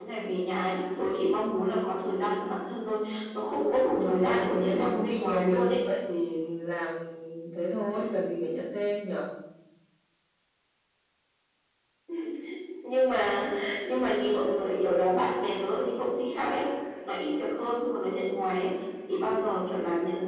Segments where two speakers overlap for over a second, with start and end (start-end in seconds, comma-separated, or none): 4.0-5.8